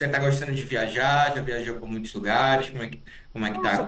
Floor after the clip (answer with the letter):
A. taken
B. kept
A